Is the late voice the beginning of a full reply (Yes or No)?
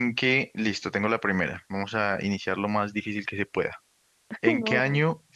No